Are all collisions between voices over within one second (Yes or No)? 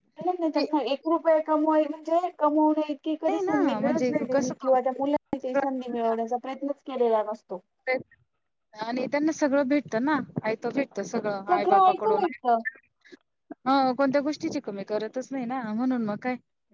No